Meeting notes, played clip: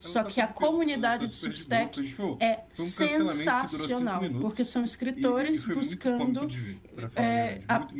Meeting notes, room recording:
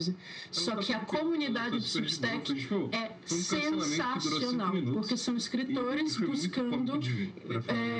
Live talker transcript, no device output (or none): none